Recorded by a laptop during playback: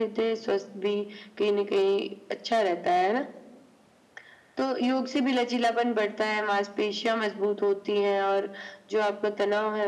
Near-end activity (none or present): none